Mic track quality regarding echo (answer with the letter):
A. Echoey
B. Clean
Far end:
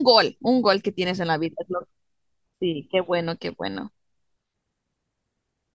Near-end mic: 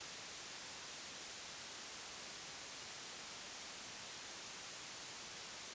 B